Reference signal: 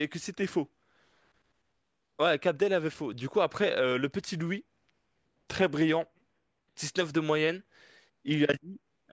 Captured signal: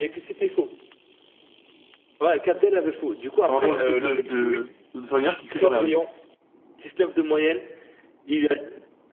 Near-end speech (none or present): present